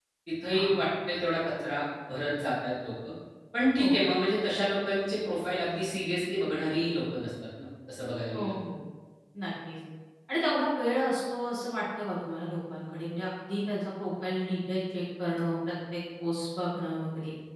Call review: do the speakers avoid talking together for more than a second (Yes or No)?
Yes